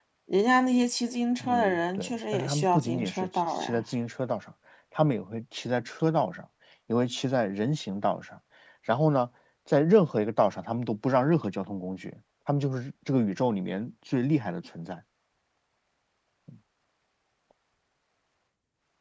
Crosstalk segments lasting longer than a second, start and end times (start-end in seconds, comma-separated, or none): 1.4-3.8